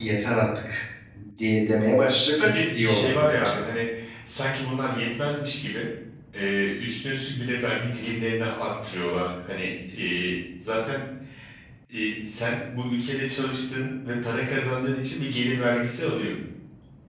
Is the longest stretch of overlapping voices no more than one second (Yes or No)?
No